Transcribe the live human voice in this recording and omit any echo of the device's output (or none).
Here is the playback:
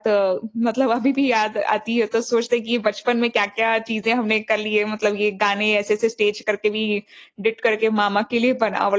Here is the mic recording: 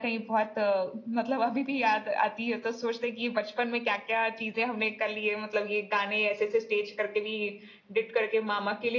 none